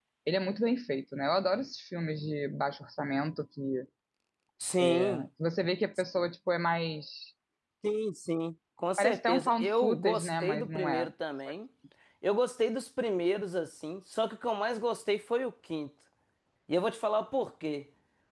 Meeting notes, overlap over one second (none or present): present